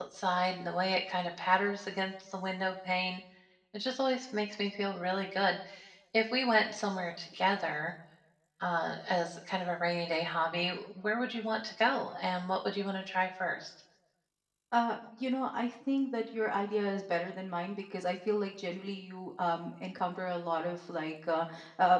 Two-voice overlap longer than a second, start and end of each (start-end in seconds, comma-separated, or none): none